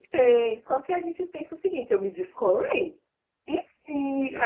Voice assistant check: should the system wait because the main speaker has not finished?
Yes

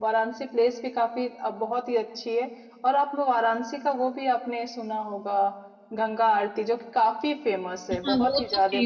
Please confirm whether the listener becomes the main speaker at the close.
Yes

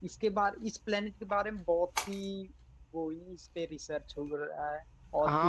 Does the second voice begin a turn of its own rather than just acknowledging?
Yes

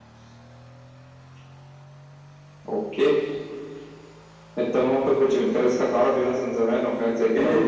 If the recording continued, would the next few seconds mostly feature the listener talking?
Yes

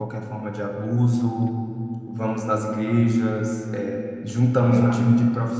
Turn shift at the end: No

